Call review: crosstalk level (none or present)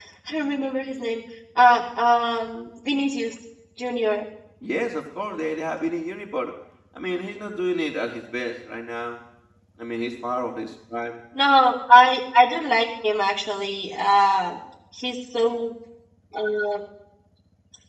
none